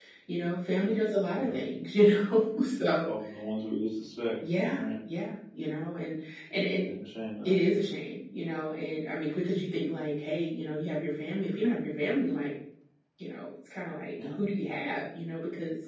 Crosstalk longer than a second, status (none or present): none